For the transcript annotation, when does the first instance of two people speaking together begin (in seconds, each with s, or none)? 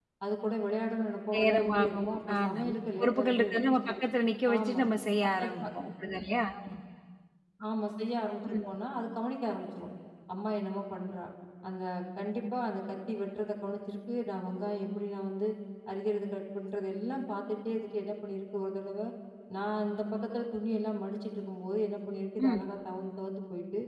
1.3 s